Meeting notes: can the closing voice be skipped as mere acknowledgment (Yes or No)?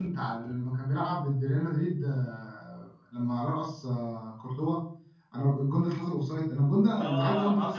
No